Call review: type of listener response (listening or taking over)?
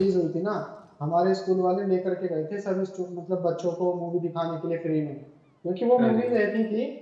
listening